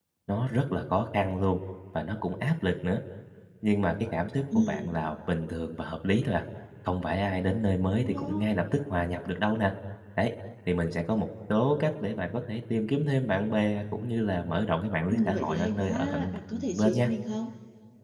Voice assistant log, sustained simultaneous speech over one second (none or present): present